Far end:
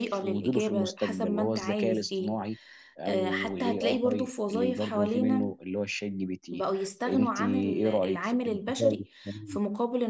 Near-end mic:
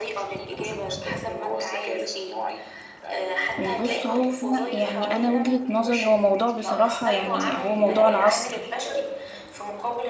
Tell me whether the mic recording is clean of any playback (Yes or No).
No